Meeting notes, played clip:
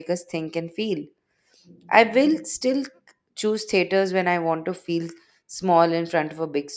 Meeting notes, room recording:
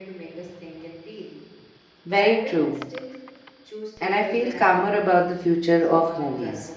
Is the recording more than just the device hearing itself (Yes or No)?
Yes